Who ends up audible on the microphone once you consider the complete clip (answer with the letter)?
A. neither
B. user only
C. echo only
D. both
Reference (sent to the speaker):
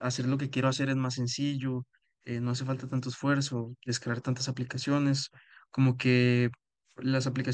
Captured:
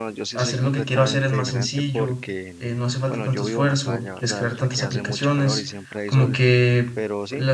D